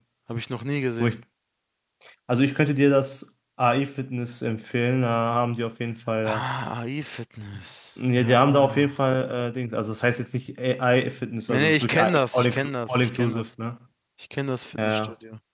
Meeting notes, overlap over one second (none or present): present